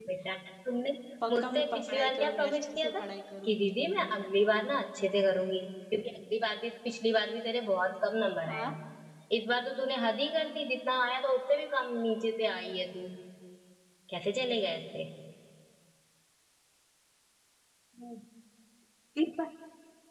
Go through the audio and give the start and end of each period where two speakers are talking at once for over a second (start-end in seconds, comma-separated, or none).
1.3-2.9